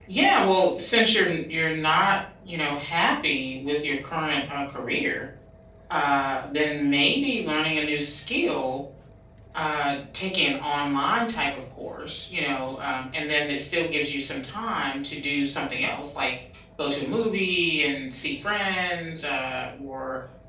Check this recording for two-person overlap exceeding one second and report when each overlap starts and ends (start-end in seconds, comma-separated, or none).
none